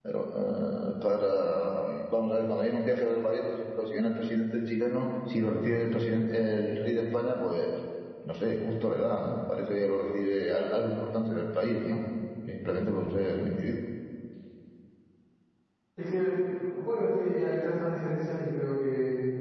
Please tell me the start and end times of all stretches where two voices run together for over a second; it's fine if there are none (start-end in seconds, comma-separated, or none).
none